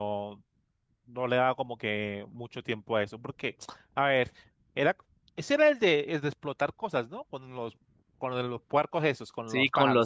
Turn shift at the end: Yes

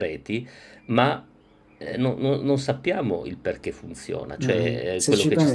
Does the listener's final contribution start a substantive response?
Yes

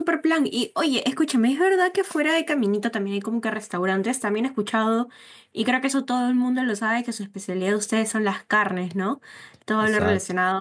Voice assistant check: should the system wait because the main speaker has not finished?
Yes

